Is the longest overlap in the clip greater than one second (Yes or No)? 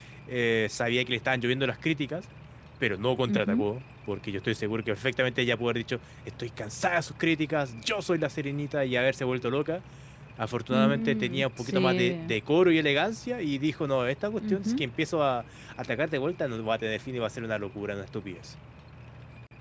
Yes